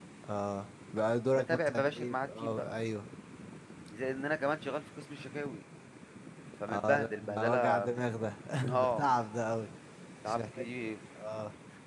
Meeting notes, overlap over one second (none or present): present